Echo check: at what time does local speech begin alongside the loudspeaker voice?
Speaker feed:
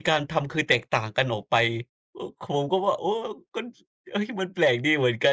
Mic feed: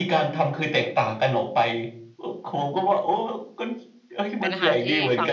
4 s

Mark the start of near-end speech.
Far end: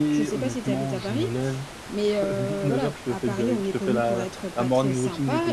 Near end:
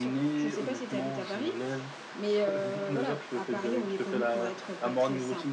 none

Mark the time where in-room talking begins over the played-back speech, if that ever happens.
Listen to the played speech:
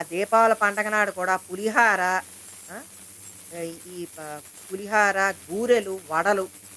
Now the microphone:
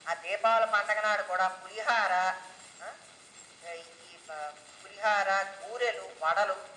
none

